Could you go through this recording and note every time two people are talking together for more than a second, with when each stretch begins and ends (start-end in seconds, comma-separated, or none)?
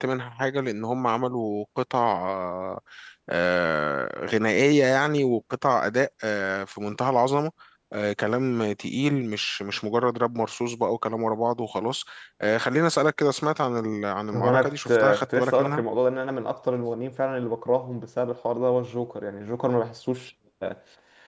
14.3-15.8